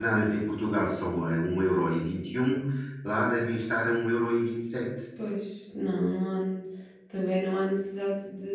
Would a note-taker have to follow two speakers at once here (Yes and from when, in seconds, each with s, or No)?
No